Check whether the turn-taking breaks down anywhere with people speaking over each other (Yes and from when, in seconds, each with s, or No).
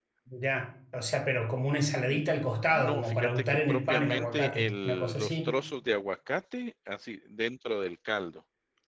Yes, from 2.7 s